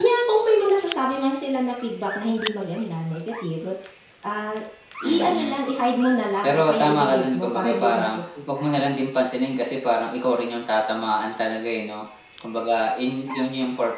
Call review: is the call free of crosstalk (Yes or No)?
No